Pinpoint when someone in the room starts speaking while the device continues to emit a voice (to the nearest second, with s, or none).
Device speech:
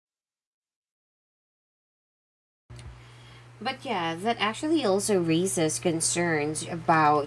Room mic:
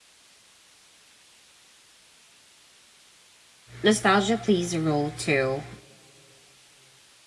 4 s